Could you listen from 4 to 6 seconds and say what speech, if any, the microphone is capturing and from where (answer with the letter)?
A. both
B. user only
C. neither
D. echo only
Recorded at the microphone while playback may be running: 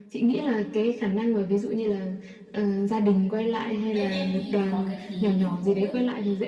A